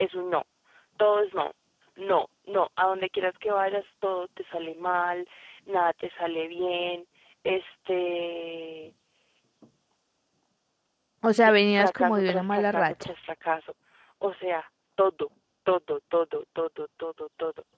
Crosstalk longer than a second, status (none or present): present